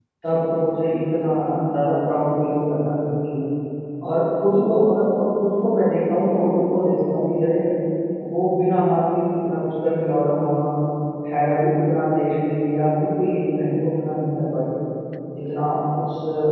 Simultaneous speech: No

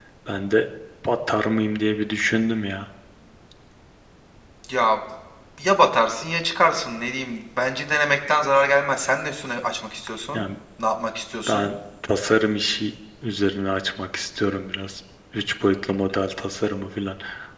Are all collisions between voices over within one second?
Yes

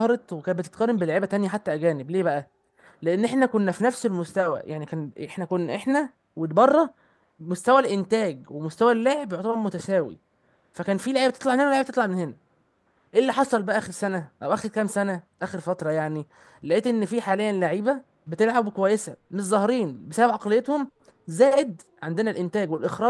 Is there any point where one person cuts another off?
No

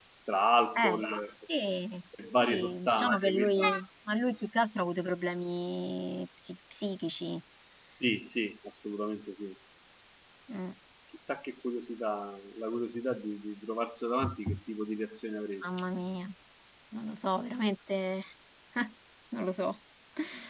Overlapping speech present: Yes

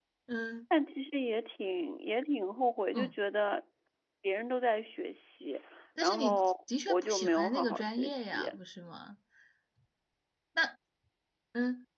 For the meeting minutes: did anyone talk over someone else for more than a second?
Yes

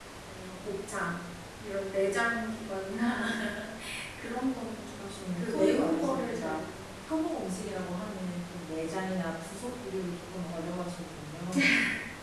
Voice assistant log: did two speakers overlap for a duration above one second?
Yes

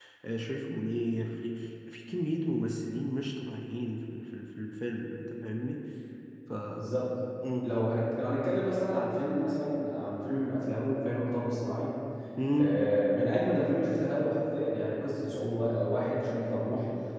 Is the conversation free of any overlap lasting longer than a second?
Yes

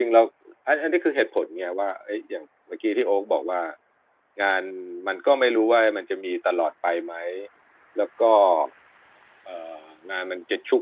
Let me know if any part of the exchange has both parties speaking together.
No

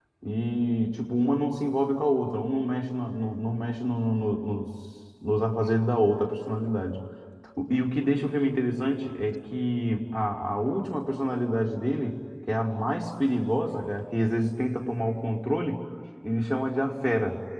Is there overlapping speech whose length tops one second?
No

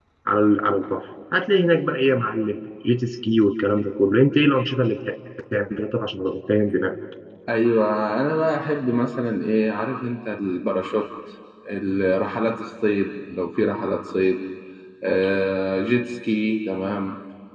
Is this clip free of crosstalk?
Yes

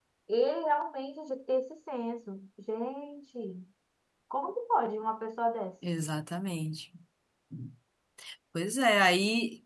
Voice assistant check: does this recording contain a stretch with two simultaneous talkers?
No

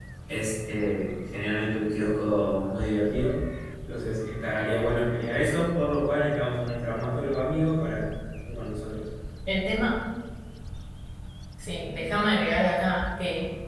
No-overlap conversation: Yes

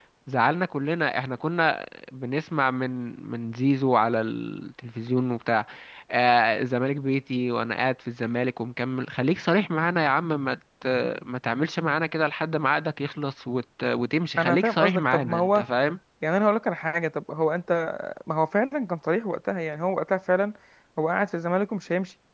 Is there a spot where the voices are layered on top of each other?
Yes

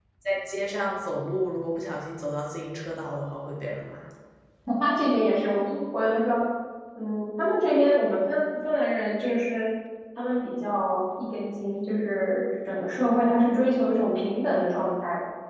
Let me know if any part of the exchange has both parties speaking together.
No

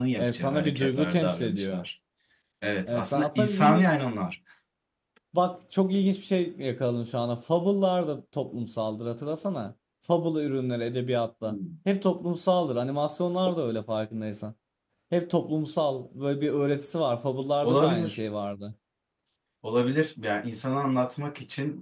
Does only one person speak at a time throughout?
No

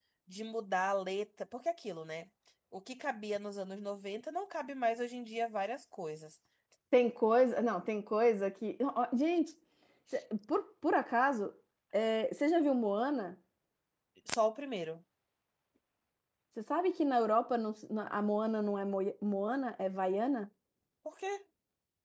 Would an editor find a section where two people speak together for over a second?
No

